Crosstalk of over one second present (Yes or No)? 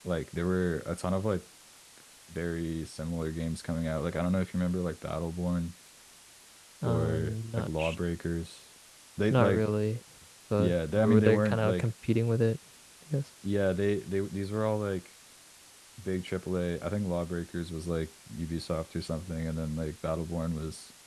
Yes